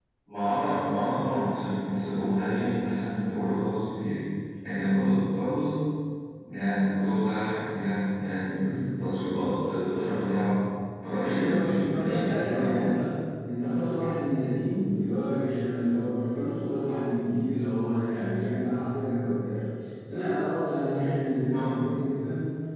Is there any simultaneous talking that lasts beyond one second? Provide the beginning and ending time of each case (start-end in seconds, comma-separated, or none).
11.2-12.8